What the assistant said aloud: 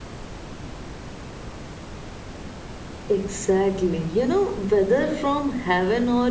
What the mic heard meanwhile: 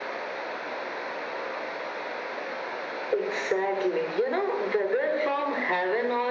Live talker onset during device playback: none

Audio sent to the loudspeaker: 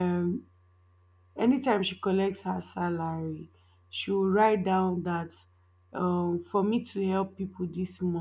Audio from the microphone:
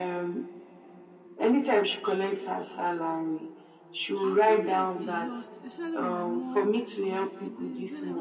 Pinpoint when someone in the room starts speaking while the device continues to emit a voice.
4 s

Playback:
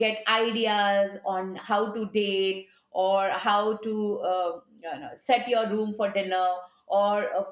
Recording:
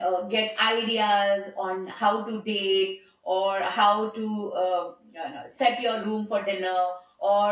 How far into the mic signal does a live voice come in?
none

